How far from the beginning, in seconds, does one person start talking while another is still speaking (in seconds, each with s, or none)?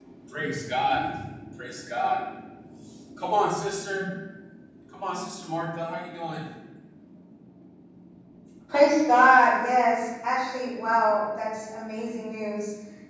none